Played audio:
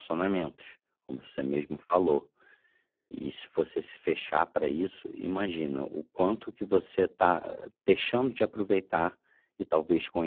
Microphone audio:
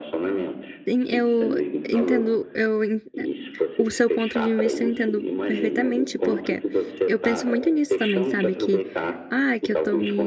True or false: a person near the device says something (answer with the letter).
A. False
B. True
B